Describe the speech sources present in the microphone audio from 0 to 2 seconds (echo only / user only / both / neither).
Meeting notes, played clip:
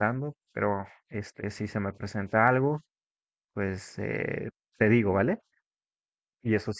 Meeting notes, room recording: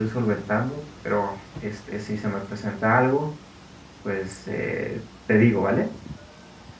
echo only